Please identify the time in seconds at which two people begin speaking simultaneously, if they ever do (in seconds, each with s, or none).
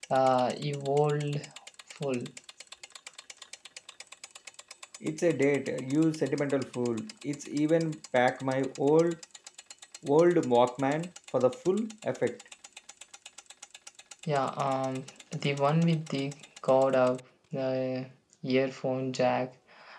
none